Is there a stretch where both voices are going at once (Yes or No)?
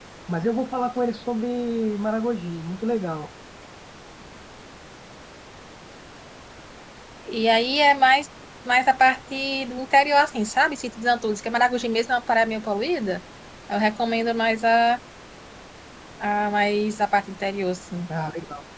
No